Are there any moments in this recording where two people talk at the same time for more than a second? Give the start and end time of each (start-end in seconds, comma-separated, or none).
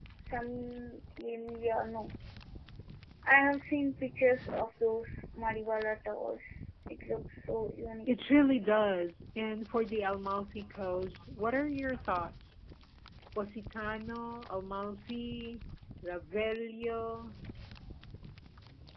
none